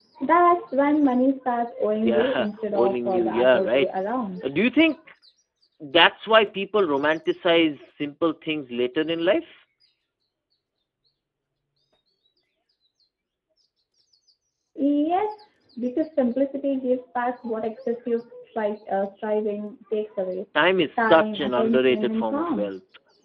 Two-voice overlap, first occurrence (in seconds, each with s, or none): 2.0 s